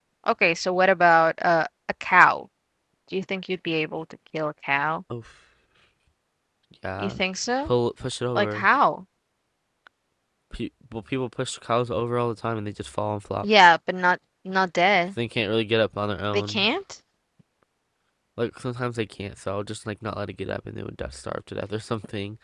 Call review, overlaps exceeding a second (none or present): none